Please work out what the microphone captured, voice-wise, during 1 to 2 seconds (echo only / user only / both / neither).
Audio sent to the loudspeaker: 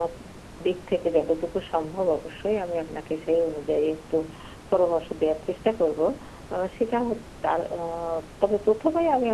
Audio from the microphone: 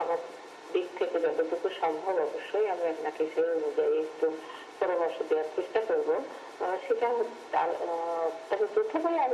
echo only